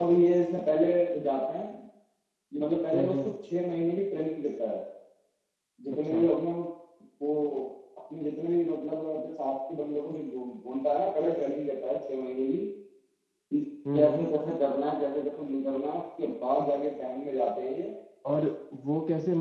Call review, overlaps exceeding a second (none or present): none